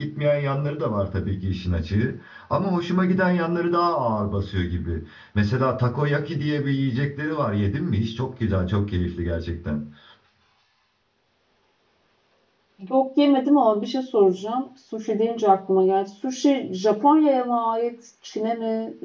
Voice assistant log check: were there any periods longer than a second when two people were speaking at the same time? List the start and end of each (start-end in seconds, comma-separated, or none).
none